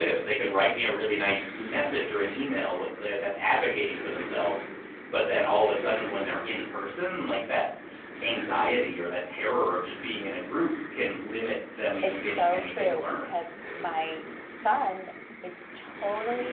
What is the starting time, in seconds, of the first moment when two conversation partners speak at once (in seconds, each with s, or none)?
12.0 s